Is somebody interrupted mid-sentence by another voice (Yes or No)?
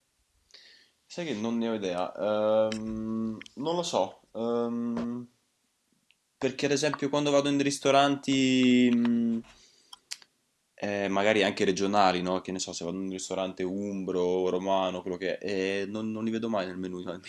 No